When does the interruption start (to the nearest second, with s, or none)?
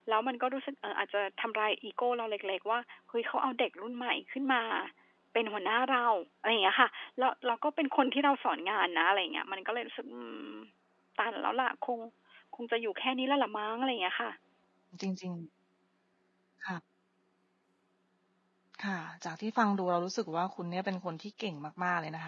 none